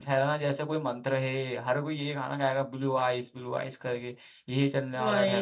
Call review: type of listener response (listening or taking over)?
listening